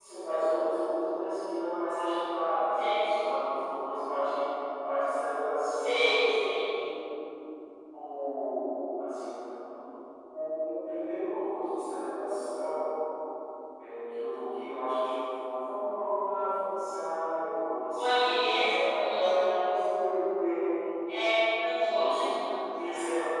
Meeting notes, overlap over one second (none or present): present